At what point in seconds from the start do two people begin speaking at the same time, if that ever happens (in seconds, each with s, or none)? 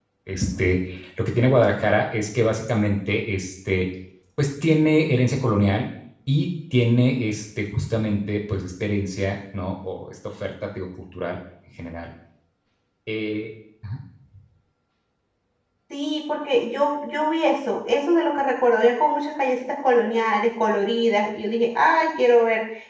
none